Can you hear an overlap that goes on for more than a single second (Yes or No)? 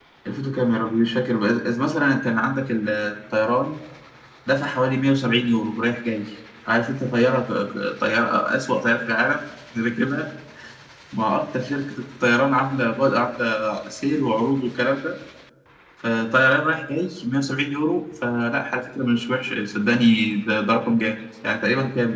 No